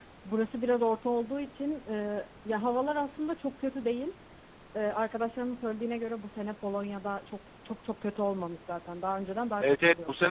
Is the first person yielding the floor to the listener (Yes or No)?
Yes